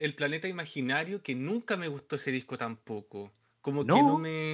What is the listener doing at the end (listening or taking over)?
listening